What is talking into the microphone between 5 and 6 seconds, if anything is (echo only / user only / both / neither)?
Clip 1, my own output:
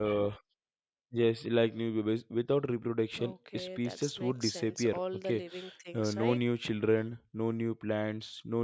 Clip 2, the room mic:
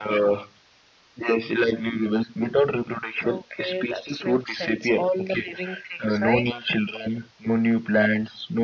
echo only